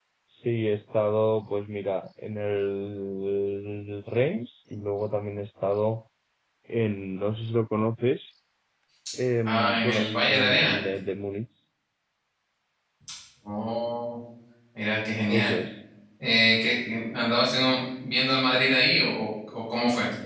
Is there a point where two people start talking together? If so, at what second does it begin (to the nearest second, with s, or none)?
9 s